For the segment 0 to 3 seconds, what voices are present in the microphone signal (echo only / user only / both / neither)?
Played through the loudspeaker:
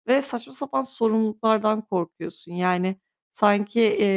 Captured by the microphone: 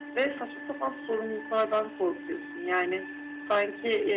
echo only